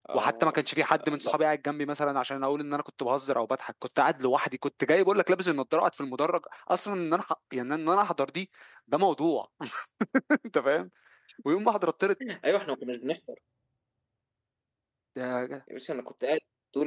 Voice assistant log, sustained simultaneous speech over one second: none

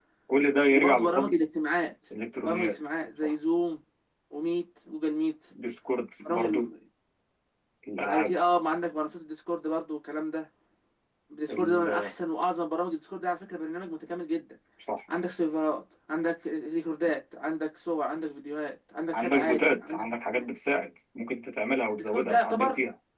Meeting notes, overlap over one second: present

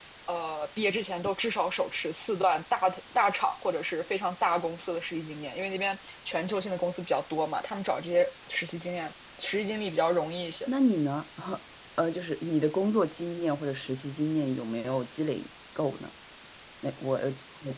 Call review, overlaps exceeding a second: none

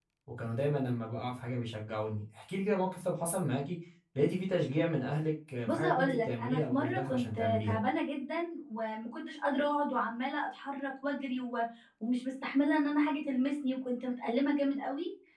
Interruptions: present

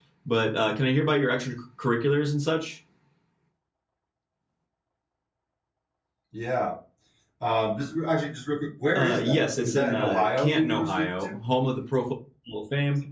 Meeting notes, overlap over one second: present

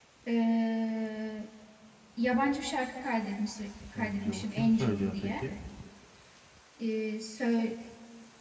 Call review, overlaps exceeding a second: present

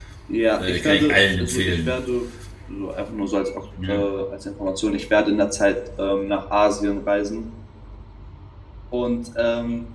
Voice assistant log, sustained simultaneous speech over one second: present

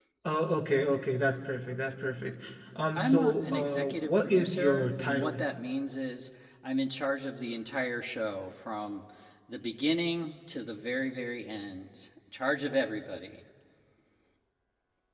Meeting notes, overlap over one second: present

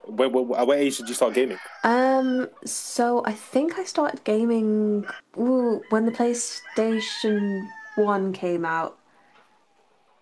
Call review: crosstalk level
none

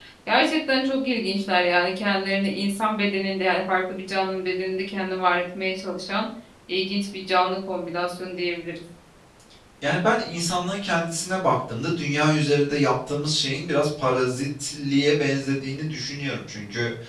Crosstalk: none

